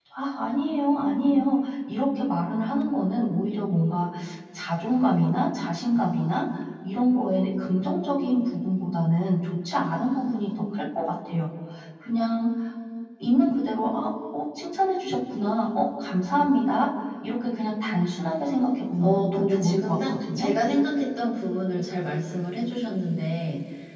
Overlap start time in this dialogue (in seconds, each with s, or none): 19.0 s